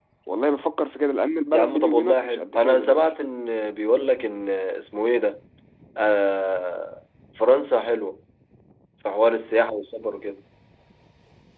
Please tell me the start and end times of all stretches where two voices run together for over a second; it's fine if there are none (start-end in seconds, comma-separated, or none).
1.5-3.0